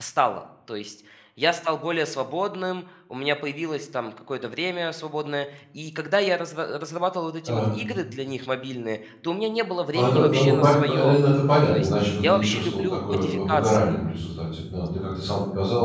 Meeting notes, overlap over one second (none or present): present